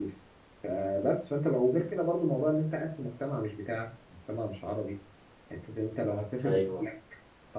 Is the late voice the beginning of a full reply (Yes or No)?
No